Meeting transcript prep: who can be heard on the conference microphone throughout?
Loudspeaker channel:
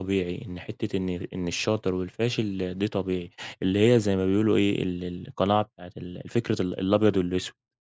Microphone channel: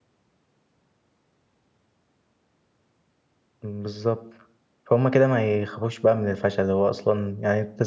user only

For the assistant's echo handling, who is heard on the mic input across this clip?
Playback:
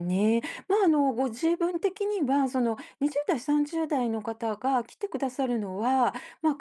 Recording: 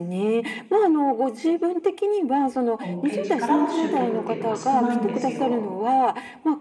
both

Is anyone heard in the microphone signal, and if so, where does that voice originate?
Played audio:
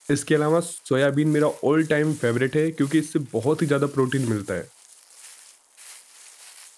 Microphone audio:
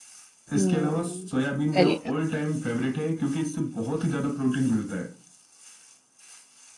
both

